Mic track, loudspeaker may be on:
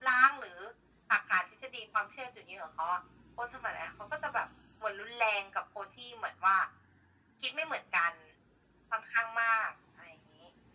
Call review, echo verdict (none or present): present